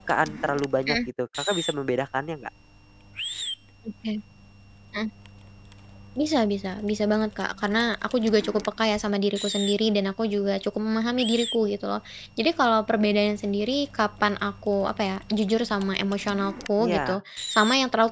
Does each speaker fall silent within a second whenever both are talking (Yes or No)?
Yes